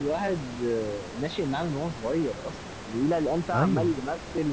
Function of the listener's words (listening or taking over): listening